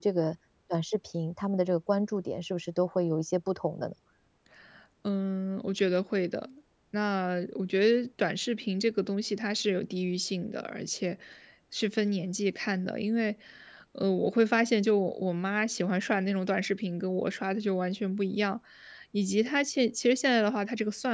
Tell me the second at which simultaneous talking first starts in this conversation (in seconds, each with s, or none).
none